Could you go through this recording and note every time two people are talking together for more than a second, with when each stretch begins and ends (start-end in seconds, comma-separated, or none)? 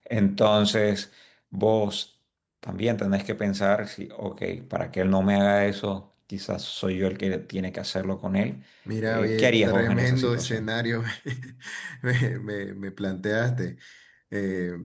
9.1-10.7